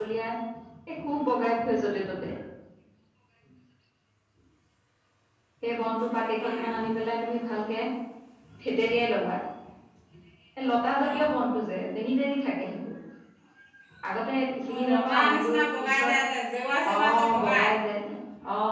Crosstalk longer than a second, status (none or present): present